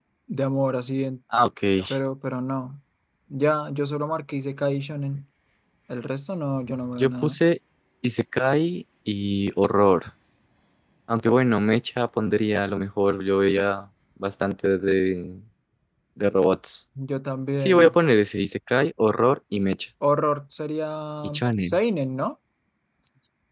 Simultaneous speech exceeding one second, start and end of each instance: none

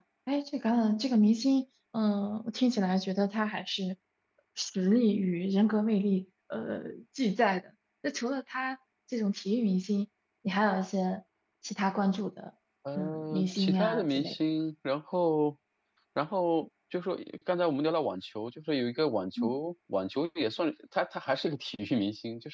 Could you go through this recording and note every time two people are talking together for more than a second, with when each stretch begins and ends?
13.0-14.3

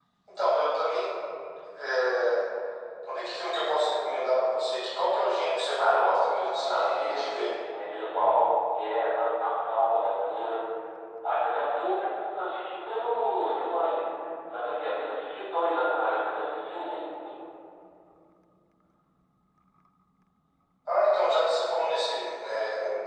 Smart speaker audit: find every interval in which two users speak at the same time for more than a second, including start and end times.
5.7-7.5

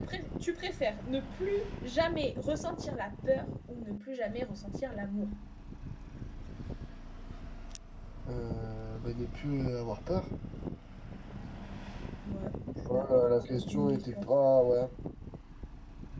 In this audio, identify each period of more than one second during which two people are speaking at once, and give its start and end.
12.9-14.2

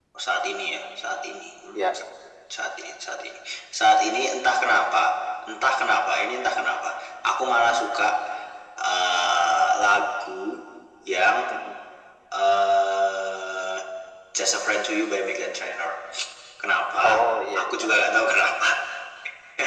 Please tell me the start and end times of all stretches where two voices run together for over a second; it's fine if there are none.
17.0-18.3

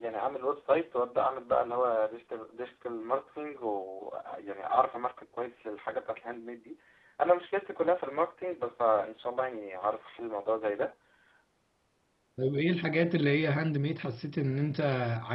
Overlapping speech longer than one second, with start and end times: none

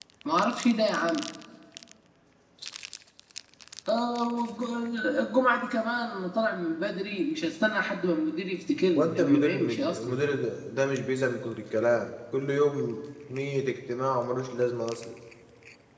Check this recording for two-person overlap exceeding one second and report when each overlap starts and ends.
9.0-10.2

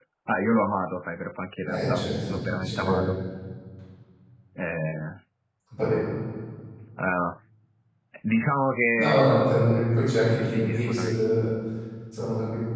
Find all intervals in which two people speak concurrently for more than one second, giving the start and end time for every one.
1.7-3.0, 9.0-11.2

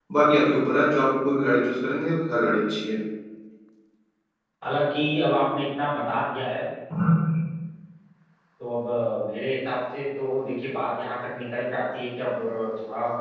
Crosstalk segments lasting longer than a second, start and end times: none

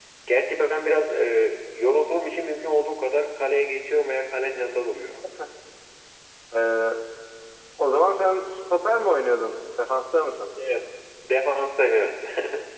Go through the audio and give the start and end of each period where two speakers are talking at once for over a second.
none

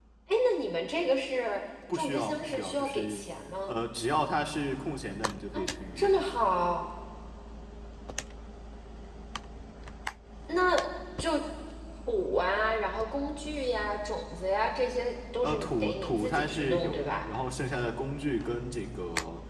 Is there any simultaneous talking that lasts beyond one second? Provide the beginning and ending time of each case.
1.9-3.3, 15.4-17.2

